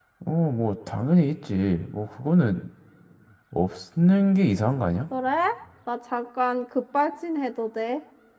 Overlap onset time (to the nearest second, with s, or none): none